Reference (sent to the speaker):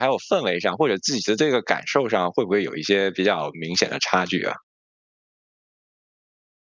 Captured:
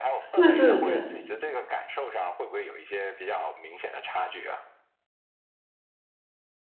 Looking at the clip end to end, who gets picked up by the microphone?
both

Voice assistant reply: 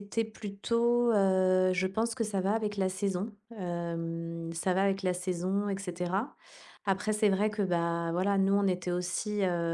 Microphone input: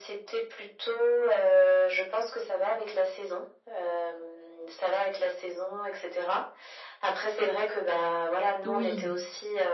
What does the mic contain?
both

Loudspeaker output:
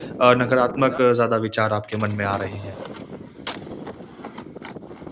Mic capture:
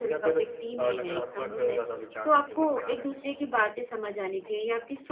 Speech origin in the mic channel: both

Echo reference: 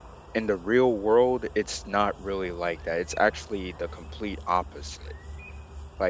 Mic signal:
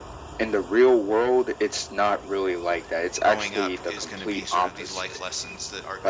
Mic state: both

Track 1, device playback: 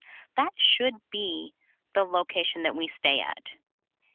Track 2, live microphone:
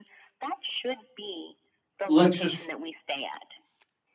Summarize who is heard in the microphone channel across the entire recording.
both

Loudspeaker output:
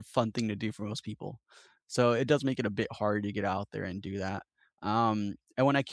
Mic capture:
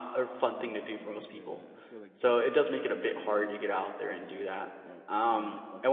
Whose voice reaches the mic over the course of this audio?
both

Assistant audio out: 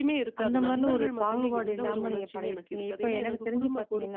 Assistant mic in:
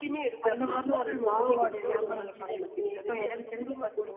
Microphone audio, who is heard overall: echo only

